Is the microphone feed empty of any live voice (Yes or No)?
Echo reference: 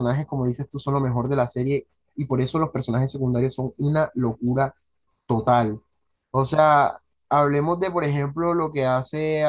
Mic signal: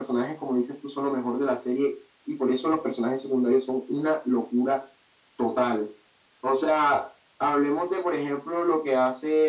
Yes